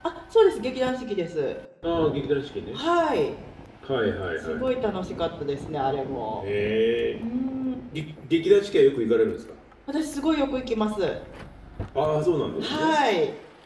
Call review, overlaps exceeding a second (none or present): none